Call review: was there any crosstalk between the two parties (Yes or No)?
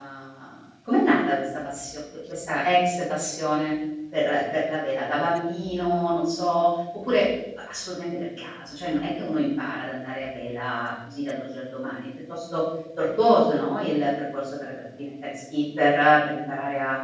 No